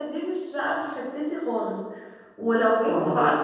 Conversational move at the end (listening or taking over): listening